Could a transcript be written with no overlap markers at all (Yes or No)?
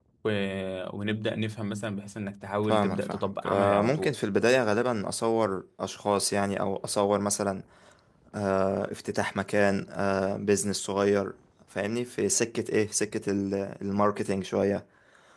No